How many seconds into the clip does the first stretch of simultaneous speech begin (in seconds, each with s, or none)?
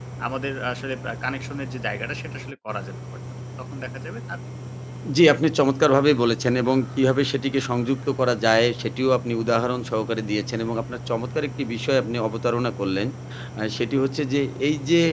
none